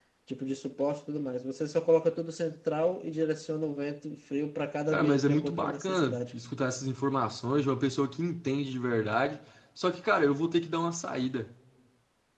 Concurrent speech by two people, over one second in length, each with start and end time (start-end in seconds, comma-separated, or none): 4.9-6.3